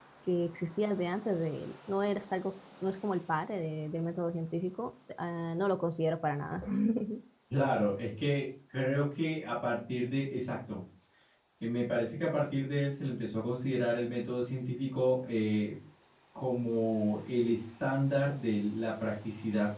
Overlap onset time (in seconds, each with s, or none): none